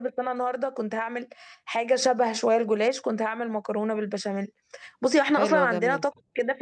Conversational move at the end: listening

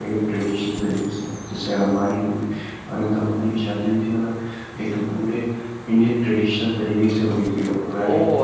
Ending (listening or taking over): taking over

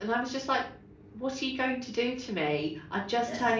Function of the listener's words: listening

